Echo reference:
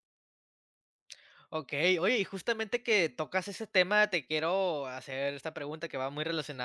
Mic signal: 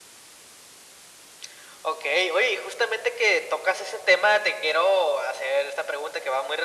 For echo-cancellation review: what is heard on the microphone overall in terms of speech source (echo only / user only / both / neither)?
echo only